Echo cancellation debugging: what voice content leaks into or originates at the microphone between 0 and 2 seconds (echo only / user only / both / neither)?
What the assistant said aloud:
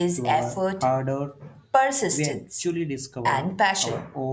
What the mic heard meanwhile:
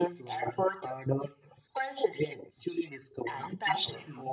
echo only